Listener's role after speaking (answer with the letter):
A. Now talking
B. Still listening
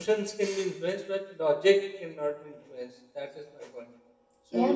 A